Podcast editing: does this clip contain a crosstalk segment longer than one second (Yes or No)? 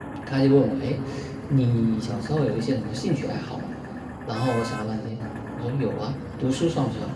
No